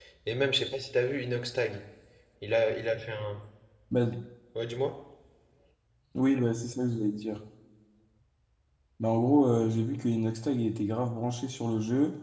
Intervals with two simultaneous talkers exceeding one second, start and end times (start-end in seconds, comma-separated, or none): none